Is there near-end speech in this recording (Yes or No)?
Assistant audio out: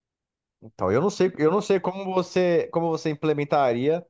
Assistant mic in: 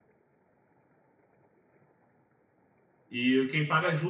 Yes